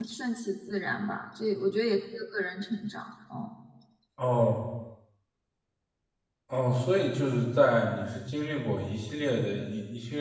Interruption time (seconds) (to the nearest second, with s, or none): none